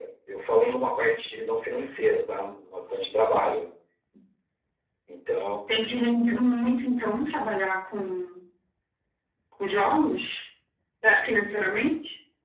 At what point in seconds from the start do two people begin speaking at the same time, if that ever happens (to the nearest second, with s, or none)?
none